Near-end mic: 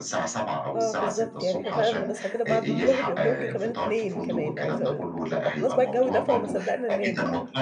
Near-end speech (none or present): present